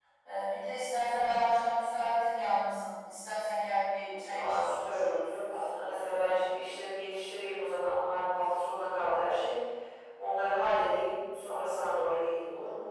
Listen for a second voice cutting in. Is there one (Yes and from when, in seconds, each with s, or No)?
Yes, from 4.1 s